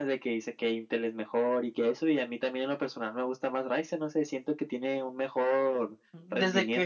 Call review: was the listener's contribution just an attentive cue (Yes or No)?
No